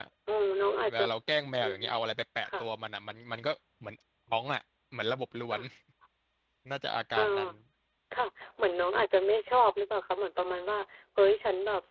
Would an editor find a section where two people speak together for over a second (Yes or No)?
No